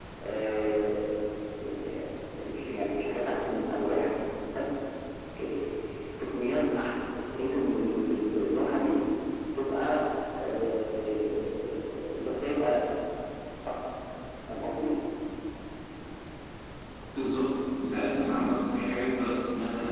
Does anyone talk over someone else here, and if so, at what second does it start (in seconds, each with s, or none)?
none